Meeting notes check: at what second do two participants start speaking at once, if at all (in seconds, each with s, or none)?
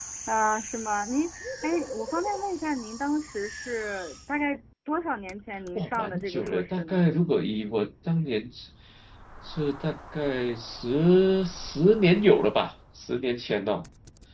5.8 s